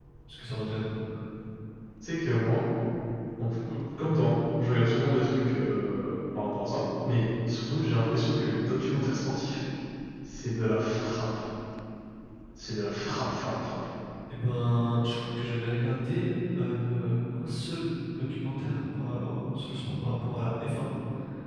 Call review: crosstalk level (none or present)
none